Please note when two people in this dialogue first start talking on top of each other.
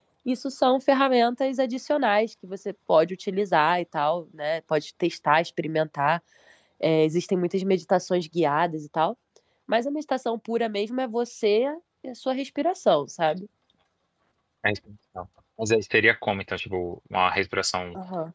none

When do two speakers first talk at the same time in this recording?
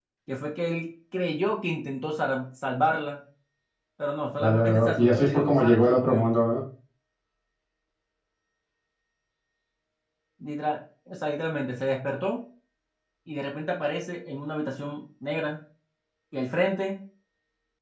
4 s

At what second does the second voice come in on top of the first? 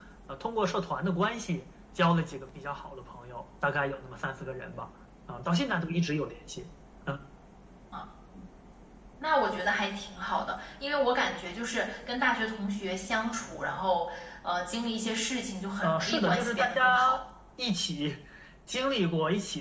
16 s

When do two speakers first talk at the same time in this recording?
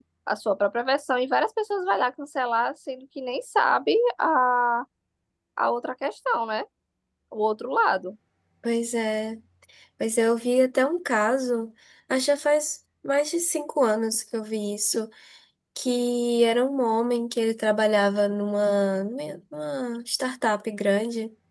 none

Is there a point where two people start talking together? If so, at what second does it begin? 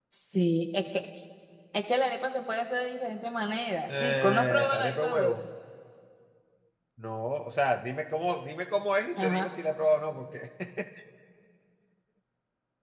4 s

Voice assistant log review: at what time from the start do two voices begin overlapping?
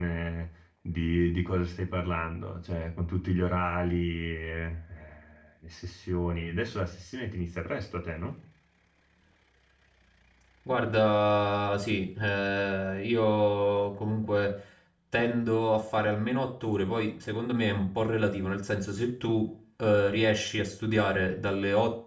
none

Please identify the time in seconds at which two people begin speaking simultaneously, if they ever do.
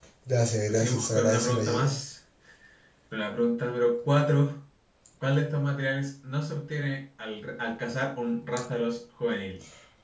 1 s

